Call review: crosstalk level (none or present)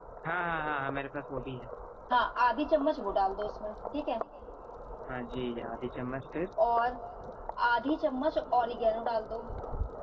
none